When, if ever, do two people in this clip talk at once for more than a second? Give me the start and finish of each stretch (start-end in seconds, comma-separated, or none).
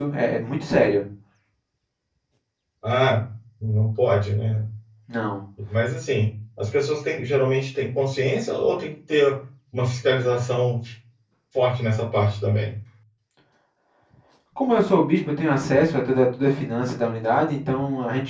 none